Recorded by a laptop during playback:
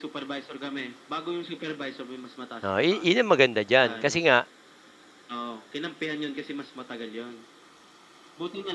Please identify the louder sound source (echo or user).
user